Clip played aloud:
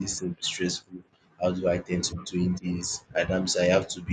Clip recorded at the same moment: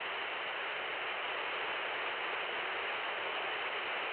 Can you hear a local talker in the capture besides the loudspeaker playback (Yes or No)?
No